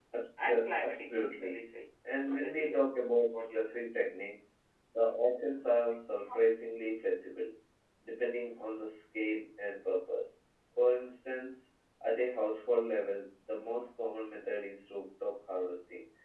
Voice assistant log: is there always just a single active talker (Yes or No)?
No